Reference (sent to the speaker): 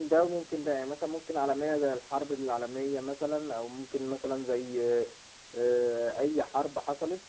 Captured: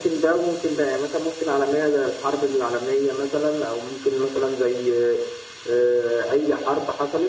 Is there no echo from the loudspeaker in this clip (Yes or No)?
No